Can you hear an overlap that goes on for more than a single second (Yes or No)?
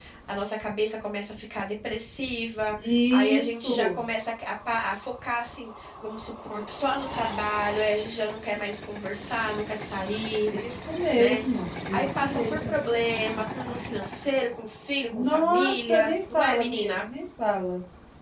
Yes